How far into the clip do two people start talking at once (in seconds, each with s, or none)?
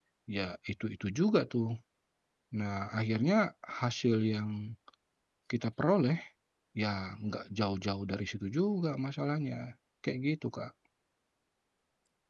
none